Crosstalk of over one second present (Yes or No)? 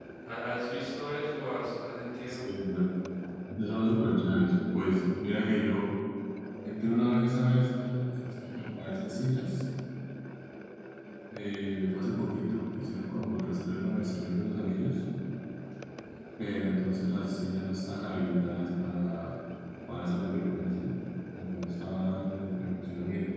No